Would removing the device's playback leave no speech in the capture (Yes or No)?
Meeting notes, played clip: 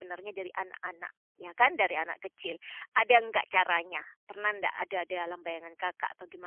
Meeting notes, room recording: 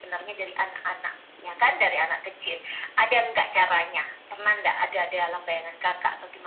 Yes